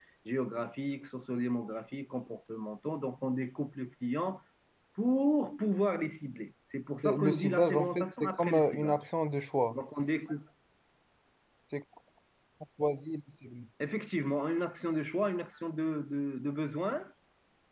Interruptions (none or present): present